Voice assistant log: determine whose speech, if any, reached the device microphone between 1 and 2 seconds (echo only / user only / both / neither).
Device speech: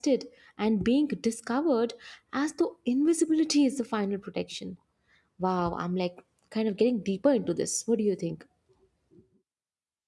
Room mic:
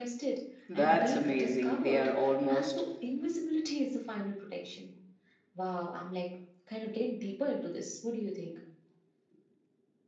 both